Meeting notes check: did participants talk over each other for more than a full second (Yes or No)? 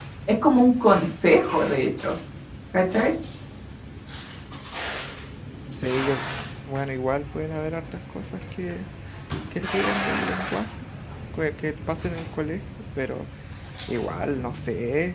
No